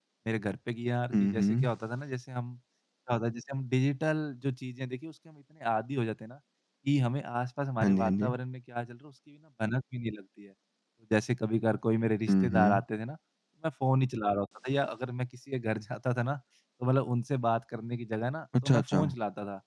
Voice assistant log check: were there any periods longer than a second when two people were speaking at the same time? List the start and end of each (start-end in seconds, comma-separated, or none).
none